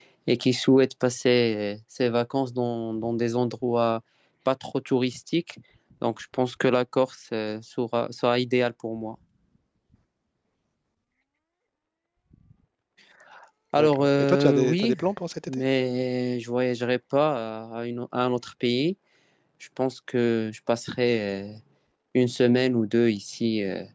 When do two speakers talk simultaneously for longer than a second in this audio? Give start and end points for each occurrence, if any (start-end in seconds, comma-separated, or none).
13.8-15.0